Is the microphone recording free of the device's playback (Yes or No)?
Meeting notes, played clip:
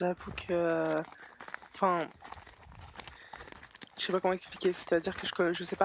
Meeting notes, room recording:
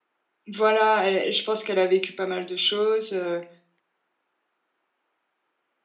Yes